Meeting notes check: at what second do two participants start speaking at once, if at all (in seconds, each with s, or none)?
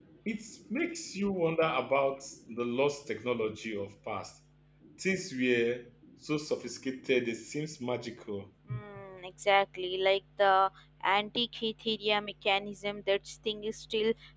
none